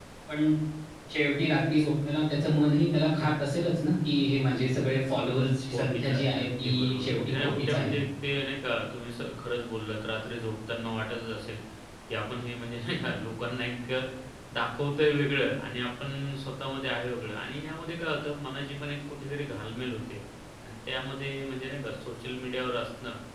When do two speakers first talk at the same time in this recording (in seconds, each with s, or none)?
5.6 s